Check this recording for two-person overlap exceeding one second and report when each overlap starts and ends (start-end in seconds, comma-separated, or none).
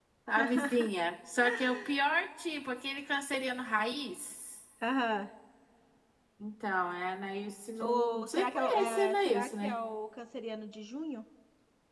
7.8-9.8